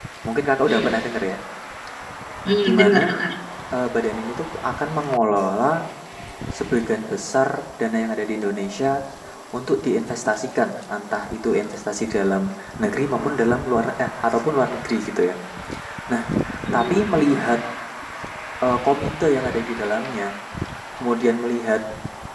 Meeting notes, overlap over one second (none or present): none